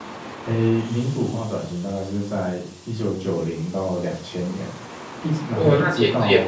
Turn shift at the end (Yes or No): Yes